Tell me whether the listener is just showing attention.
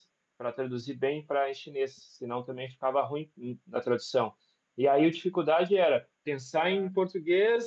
Yes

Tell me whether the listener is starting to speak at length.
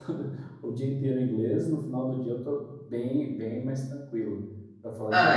Yes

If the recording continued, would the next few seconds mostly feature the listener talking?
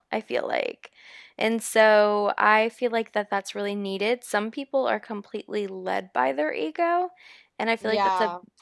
No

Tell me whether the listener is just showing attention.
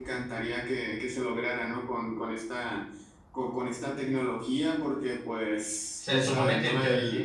No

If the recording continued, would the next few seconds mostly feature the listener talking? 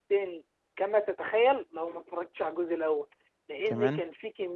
No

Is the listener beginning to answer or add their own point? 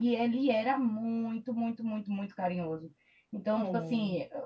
No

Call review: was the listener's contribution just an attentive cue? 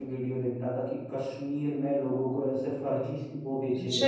No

